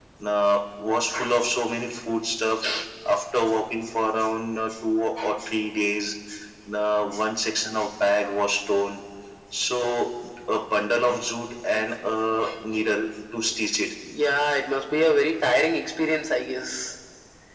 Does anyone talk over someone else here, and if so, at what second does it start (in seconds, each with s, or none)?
none